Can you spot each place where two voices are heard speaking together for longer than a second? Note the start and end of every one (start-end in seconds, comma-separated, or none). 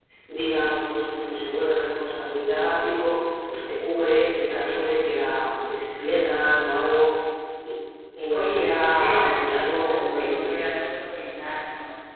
8.3-10.7